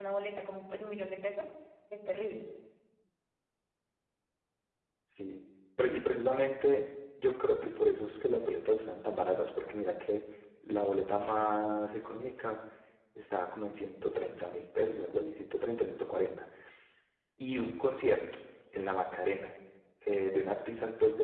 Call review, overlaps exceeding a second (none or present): none